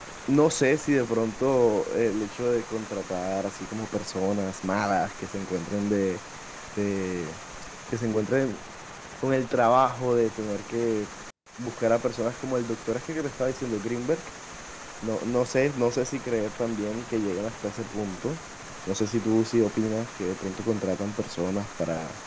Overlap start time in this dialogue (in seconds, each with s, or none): none